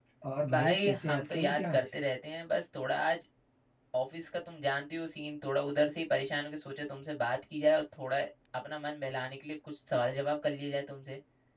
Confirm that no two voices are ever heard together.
No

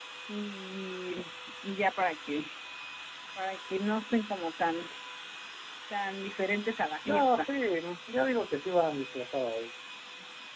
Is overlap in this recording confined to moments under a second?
Yes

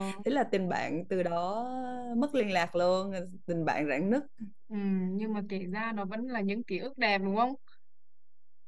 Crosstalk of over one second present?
No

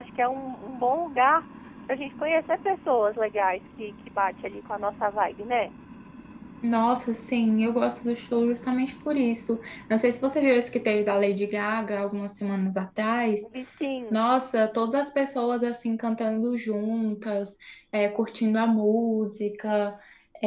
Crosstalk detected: No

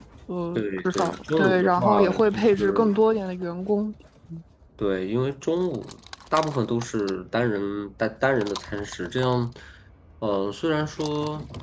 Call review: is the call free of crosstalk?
No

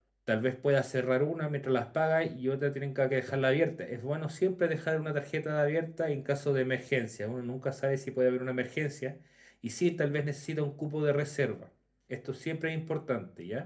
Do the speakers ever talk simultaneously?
No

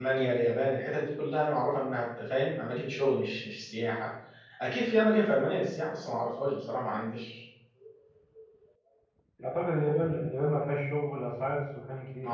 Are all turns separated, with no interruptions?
Yes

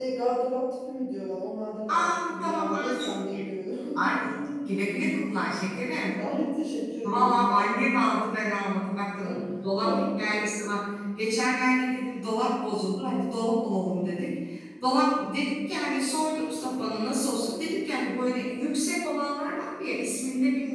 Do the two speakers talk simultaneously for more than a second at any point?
Yes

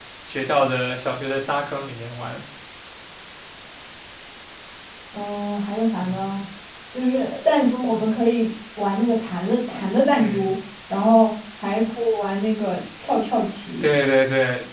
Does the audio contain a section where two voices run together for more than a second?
No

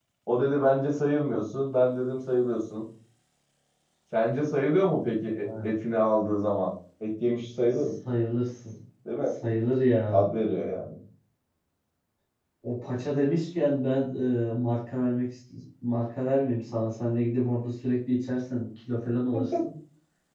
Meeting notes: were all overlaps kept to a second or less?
Yes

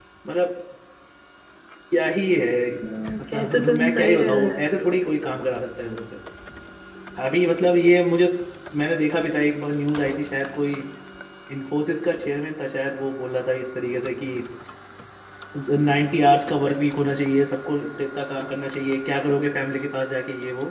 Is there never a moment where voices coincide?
No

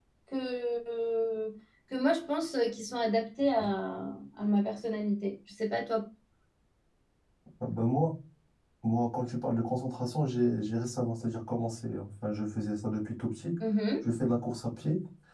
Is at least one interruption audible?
No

